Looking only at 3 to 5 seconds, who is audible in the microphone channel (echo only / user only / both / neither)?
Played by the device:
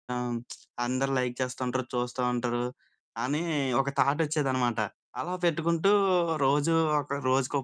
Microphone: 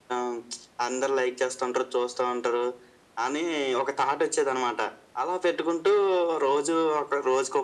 echo only